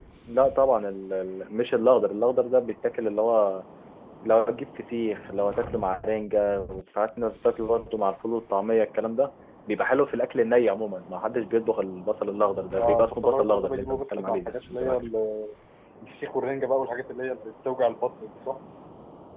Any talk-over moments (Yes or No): Yes